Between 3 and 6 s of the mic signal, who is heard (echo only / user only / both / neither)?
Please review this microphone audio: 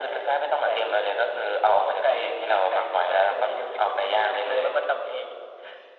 echo only